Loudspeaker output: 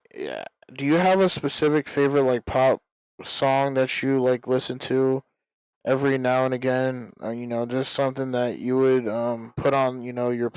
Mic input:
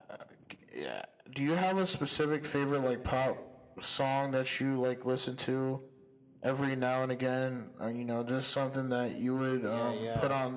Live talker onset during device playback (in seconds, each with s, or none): 9.6 s